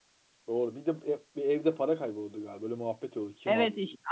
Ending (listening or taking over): taking over